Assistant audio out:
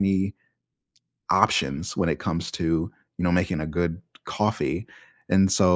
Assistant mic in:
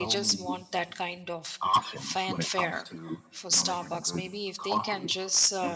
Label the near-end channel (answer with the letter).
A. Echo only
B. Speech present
B